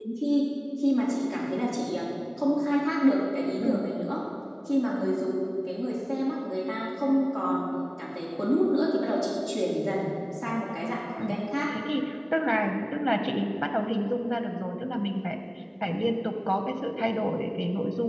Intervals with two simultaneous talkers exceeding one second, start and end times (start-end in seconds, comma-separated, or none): none